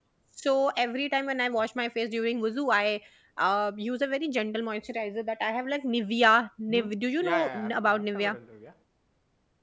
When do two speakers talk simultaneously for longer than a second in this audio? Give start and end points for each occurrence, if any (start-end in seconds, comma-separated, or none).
6.7-8.4